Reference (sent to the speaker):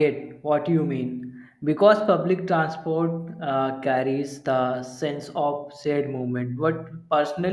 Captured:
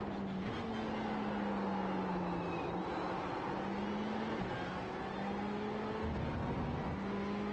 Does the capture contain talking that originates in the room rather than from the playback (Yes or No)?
No